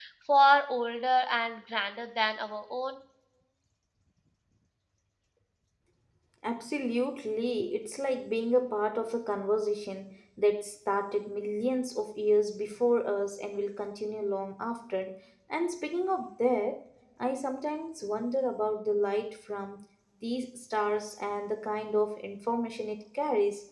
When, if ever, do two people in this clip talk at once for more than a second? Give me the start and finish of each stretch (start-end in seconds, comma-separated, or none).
none